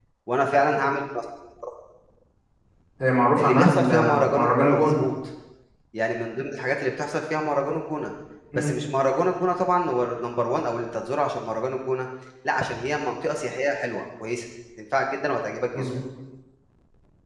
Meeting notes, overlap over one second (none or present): present